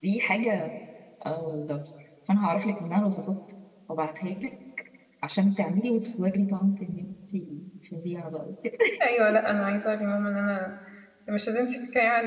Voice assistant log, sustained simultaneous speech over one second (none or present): none